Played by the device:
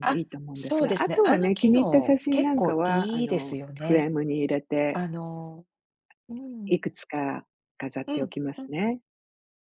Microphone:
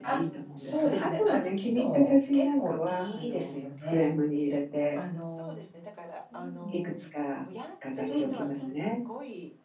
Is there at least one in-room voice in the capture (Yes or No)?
Yes